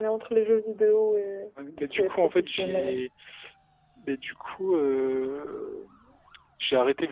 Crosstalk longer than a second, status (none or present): present